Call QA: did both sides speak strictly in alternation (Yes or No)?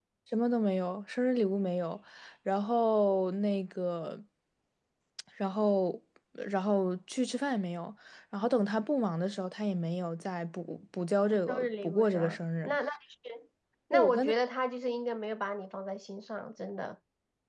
No